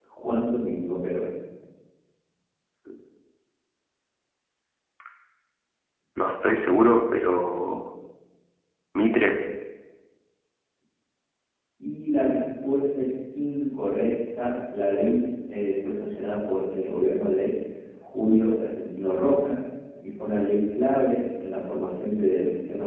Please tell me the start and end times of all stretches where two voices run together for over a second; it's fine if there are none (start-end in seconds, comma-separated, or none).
none